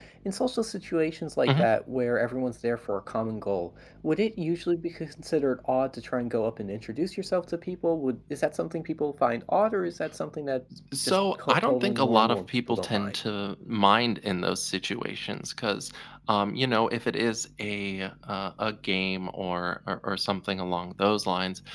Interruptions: present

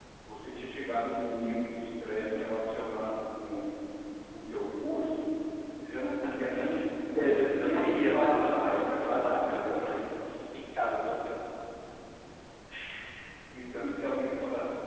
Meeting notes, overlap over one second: present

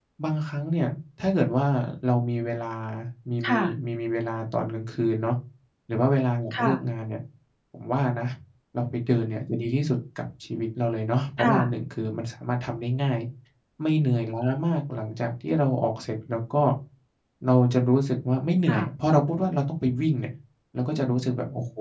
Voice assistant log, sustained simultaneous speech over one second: none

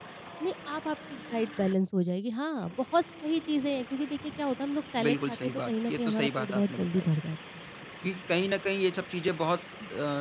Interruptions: present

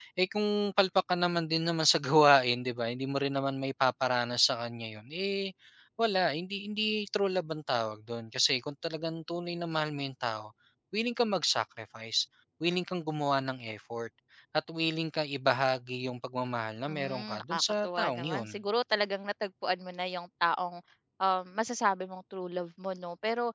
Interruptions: present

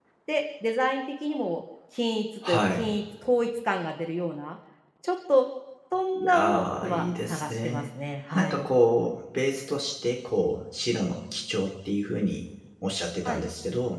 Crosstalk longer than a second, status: present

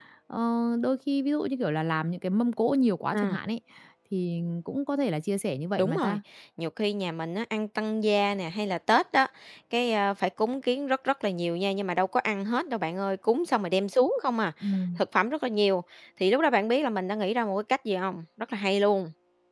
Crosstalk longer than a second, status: none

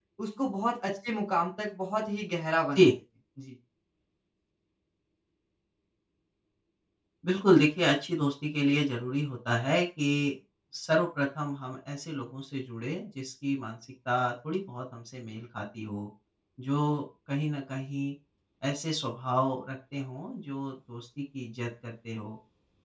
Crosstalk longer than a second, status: none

